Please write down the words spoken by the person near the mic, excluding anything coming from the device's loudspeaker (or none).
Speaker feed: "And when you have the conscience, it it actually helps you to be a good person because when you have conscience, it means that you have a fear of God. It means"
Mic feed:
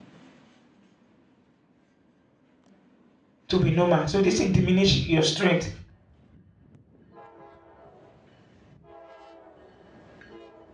to be normal. So this thing diminish your strength